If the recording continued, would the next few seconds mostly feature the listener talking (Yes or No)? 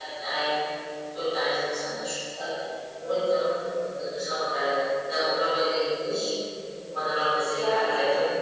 Yes